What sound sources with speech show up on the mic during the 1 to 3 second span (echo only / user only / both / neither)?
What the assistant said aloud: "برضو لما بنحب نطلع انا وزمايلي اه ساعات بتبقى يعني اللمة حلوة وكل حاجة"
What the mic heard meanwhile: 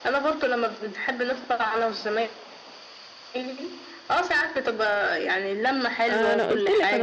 echo only